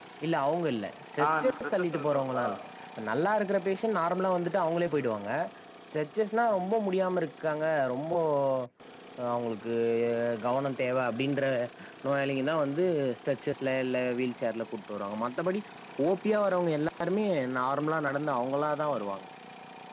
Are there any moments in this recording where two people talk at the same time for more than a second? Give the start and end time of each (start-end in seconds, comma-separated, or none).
1.2-2.5